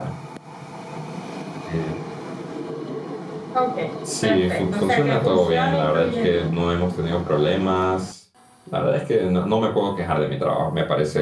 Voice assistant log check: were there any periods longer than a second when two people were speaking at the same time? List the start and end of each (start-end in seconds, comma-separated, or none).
4.2-6.5